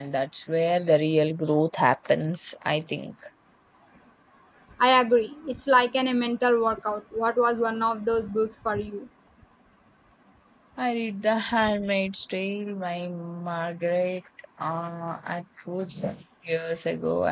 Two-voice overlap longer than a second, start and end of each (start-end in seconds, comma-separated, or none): none